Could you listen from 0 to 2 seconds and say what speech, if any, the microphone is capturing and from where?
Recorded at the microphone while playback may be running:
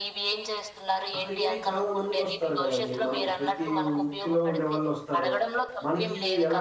both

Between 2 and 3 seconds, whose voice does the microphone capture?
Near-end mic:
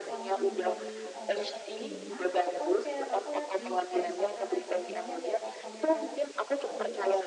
both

